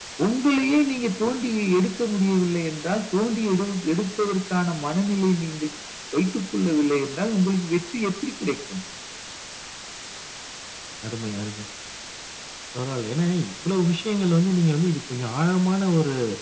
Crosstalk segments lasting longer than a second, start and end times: none

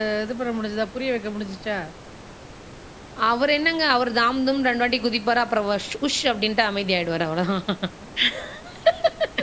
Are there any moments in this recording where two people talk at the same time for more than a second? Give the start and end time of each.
none

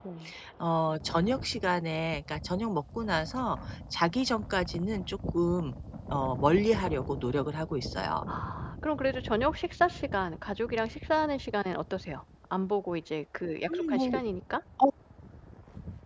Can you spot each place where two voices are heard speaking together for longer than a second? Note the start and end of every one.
none

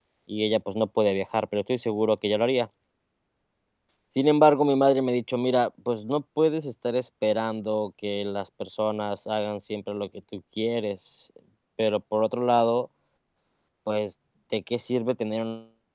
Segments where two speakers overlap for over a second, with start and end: none

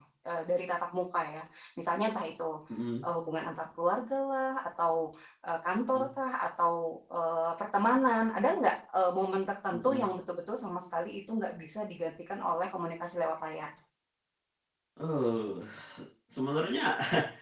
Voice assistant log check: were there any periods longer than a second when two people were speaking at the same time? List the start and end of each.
none

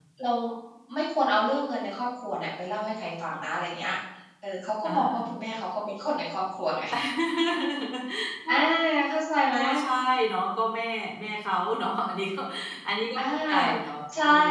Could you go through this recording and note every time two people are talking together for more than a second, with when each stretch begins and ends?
none

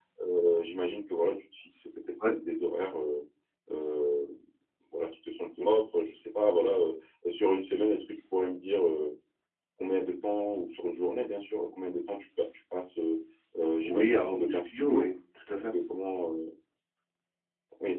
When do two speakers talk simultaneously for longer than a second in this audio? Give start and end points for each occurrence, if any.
13.8-15.1

